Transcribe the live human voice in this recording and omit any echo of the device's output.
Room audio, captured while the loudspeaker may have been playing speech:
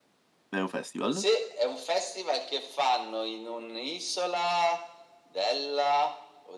È un festival?

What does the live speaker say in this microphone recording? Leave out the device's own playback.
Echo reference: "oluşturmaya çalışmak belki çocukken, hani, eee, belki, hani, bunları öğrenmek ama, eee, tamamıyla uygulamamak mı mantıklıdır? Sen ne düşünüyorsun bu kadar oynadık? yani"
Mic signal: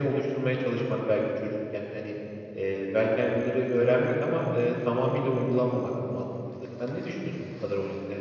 none

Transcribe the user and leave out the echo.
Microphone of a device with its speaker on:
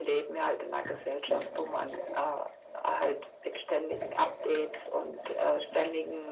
none

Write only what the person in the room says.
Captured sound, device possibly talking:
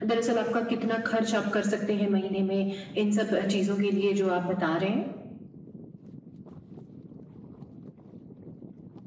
none

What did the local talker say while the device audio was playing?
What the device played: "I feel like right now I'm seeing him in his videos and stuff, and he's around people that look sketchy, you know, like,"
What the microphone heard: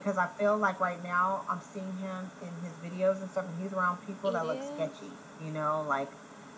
It is

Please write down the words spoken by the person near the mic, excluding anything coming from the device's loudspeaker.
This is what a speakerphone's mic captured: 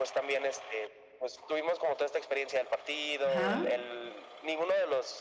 Ajá.

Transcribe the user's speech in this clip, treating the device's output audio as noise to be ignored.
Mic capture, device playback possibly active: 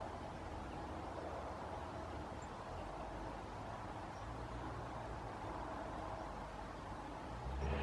none

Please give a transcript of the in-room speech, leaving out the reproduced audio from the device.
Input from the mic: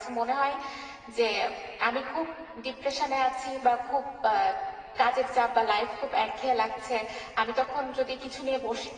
none

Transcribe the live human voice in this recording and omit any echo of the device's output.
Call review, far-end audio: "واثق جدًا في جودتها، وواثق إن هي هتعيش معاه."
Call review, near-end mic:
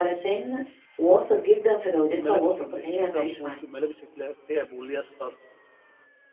الملابس ال اللي فيها صوف، الملابس اللي فيها بوليستر،

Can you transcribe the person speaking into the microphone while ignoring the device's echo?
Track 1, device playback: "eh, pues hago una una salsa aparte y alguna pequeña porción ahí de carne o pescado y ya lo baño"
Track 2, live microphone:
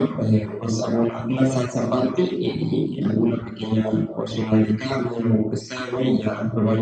none

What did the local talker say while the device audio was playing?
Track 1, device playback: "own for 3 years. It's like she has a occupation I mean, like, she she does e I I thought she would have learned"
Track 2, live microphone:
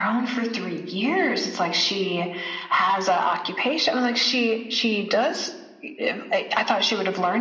none

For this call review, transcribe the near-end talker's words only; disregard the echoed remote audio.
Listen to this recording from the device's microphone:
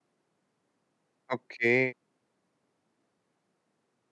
ओके।

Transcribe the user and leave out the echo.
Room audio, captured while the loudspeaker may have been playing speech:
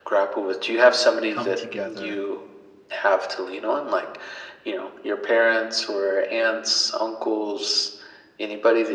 come together

